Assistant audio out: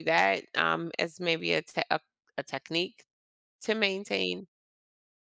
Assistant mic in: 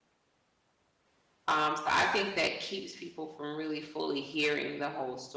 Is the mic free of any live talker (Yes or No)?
No